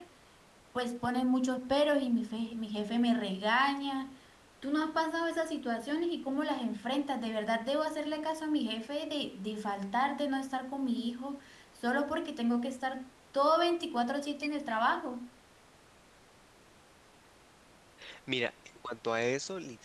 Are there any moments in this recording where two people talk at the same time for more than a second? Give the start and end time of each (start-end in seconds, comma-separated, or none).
none